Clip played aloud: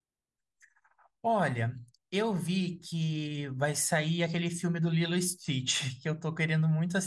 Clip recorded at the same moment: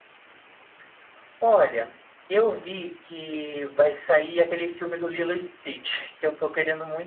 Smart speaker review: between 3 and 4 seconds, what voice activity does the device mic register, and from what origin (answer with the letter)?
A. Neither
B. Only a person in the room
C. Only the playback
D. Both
C